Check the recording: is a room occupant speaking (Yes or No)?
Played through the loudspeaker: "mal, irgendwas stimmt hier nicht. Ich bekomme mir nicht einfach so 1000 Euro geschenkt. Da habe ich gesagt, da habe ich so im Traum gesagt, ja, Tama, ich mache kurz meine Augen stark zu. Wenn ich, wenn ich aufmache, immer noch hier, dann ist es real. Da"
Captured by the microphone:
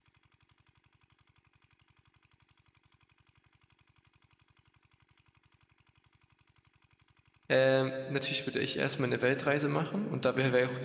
Yes